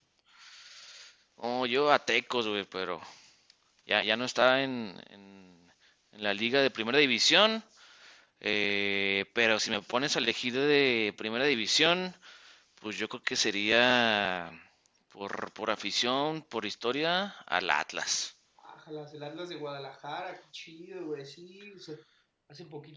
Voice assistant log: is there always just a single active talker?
Yes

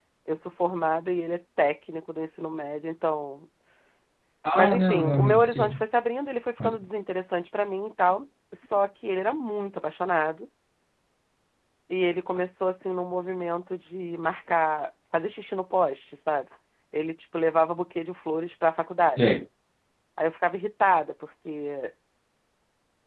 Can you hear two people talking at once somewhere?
Yes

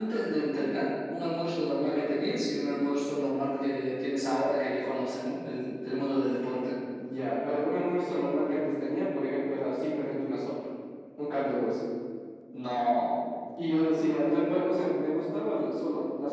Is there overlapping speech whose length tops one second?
No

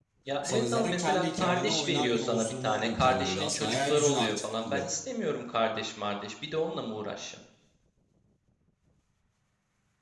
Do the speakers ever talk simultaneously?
Yes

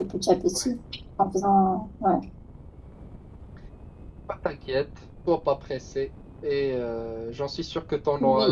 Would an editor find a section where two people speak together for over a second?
No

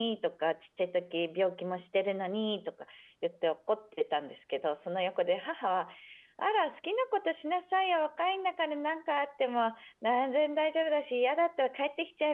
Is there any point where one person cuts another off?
No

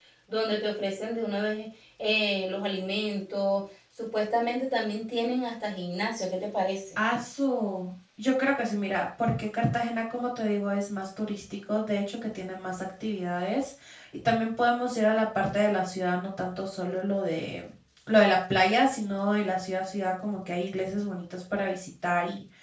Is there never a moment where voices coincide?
Yes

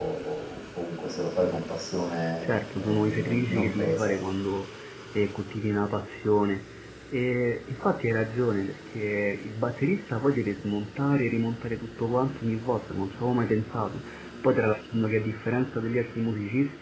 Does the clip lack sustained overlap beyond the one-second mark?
No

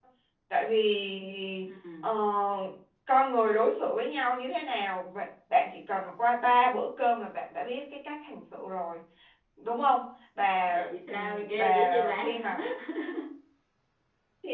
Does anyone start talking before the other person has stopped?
Yes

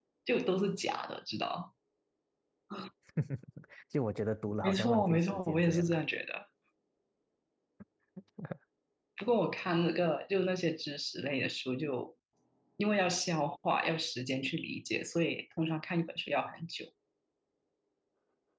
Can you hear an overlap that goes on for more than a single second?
Yes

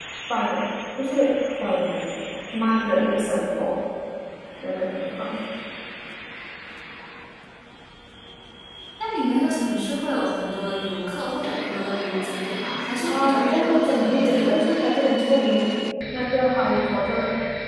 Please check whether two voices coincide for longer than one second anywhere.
Yes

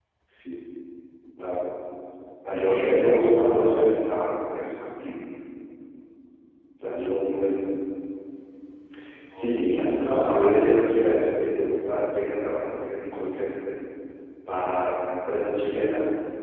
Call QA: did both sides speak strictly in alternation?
No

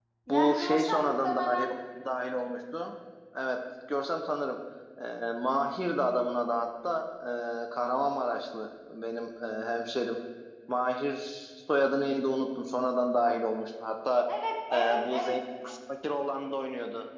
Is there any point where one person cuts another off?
Yes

